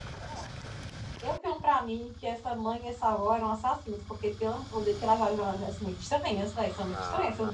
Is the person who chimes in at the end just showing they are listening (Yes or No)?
No